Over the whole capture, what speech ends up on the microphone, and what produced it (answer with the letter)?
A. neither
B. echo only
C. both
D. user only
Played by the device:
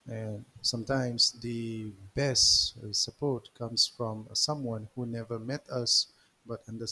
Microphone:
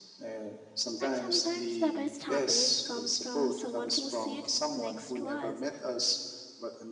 C